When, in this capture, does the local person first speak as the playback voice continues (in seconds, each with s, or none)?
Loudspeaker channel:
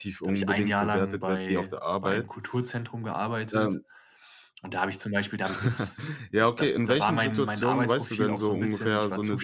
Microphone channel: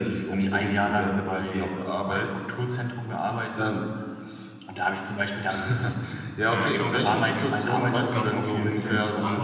6.5 s